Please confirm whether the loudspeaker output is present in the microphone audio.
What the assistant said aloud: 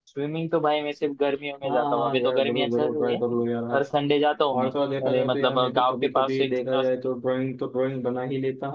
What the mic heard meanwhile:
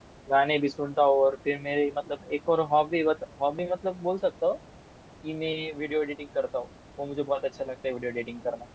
No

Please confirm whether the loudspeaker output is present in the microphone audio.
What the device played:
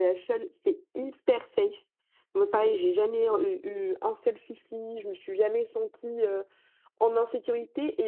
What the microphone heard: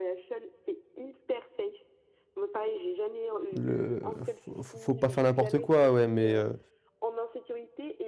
Yes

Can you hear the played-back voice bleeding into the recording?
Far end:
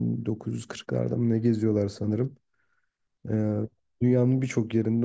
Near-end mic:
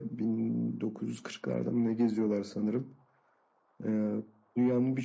Yes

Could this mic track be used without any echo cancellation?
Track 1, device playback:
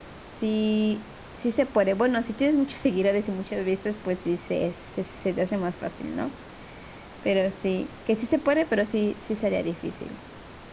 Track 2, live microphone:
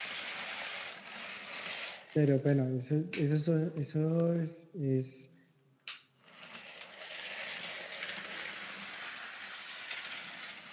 Yes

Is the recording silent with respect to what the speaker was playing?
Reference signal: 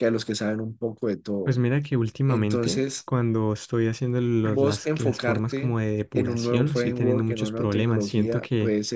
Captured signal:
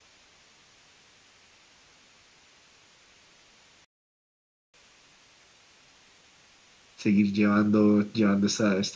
Yes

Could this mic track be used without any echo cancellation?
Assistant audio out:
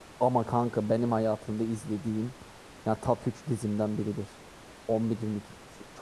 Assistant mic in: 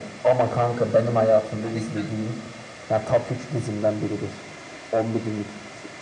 No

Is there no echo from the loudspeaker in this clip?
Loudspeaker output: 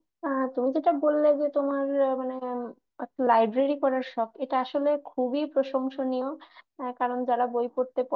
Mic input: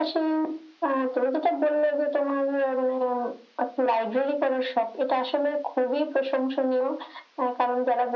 No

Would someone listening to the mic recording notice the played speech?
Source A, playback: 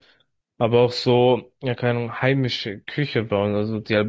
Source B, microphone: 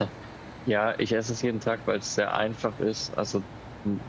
No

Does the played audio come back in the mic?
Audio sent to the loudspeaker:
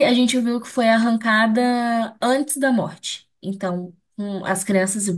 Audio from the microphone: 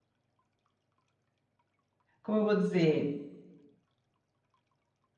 No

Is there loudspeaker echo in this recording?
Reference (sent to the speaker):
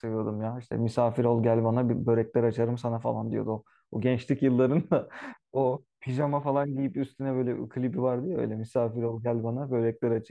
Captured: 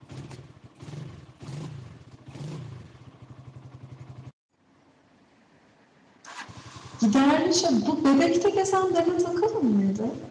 No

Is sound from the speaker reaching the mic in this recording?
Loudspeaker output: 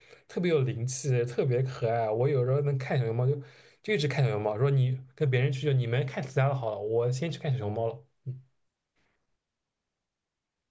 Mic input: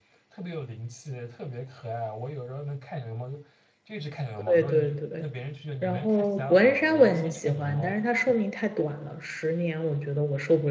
Yes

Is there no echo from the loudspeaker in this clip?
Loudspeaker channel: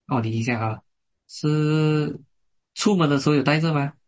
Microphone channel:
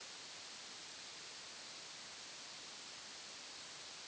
Yes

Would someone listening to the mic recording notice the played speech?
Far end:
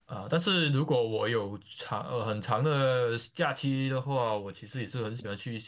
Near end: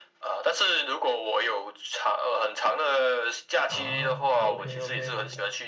Yes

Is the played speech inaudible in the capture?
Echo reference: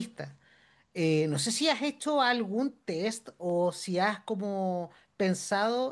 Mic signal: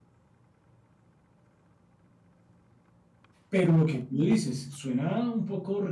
Yes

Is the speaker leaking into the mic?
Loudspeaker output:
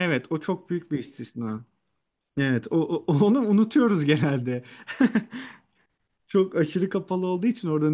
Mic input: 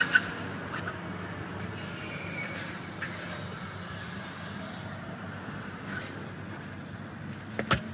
No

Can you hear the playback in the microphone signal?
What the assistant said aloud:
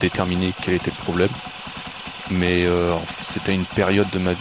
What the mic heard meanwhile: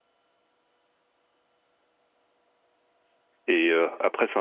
No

